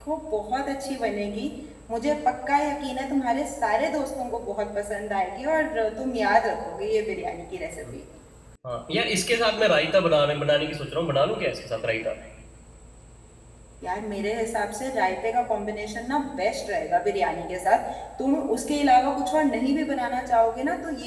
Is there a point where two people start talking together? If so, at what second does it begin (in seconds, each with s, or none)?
none